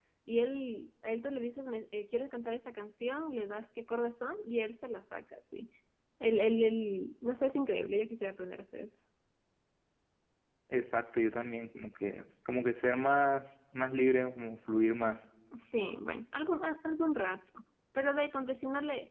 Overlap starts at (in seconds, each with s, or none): none